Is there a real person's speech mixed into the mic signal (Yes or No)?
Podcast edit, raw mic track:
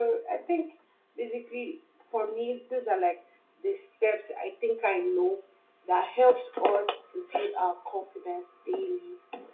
No